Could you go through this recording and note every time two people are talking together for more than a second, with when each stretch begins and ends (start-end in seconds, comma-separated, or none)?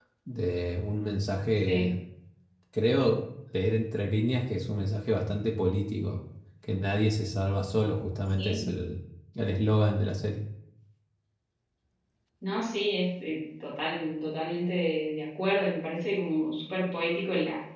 none